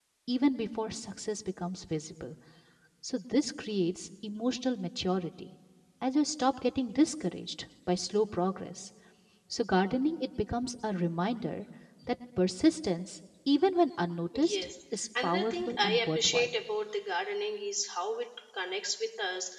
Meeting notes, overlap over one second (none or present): present